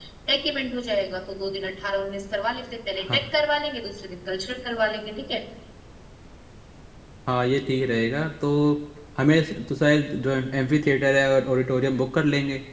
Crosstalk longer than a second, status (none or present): none